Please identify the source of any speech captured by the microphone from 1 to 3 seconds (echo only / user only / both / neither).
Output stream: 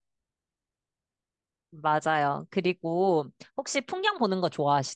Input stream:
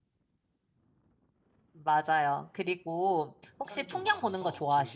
echo only